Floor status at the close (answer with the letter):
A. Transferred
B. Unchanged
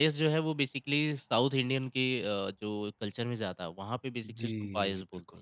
A